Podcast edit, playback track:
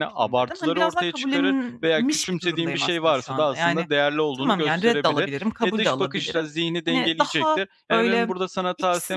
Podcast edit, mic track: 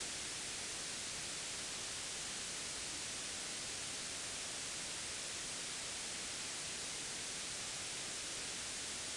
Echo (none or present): none